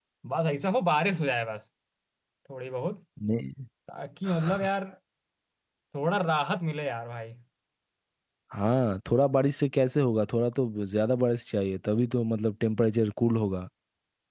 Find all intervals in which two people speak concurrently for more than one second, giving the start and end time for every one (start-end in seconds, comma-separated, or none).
none